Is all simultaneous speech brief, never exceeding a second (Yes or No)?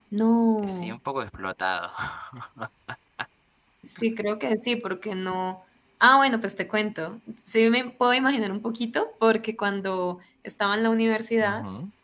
Yes